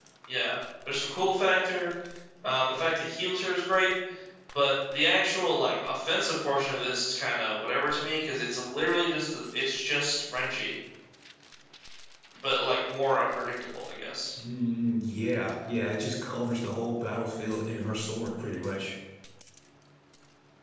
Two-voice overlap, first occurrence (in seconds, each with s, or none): none